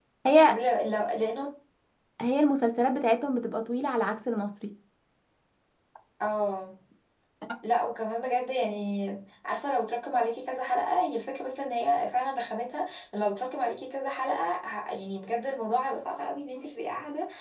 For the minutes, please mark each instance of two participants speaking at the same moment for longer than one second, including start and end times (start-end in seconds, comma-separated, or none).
none